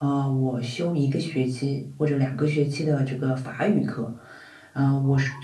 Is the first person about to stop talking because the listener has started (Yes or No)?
No